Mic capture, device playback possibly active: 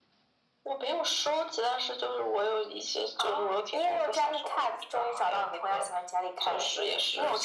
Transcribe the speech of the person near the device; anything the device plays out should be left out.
none

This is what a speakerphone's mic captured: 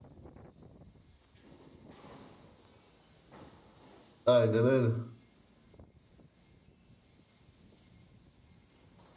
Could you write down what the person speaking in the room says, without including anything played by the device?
Aynen öyle.

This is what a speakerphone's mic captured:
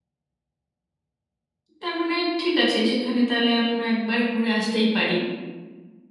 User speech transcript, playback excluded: তার মানে ঠিক আছে সেখানে তাহলে আমরা একবার ঘুরে আসতেই পারি

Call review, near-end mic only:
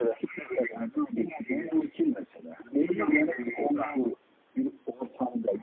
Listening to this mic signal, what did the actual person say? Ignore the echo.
none

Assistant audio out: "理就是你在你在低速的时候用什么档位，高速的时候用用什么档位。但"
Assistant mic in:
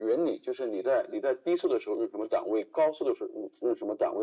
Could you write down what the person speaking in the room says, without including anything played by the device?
none

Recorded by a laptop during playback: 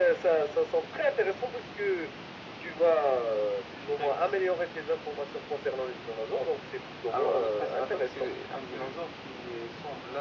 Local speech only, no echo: none

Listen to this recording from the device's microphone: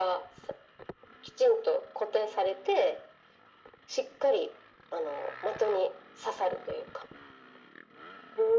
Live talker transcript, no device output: none

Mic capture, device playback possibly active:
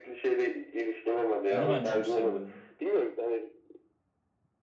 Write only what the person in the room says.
Onu ben çok seviyorum.

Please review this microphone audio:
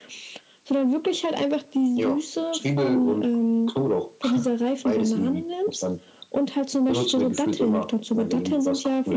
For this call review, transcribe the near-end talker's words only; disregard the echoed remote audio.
none

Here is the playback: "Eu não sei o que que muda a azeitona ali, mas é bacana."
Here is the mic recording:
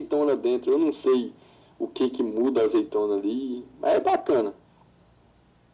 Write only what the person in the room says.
none

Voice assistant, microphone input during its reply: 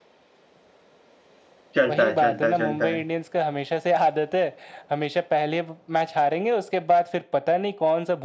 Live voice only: चलता है चलता है चलता है

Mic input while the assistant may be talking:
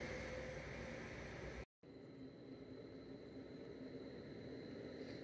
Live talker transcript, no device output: none

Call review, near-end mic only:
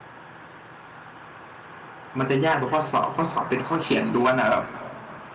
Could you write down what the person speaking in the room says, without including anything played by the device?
มันจะยากตรงข้อสอบข้อสอบเป็นข้อเขียนล้วนอ่ะแบบ

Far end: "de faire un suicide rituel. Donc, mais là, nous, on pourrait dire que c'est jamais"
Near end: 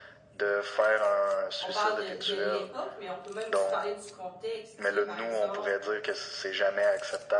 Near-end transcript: on parle de, de l'époque, mais on peut même aussi parler du contexte. Tu sais, par exemple,

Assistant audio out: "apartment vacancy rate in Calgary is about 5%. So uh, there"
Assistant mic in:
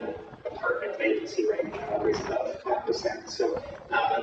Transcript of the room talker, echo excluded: none

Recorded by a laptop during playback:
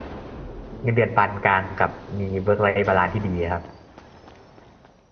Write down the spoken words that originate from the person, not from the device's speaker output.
เงินเดือนปานกลางกับมีเวิร์กไลฟ์บาลานซ์ที่ดีครับ

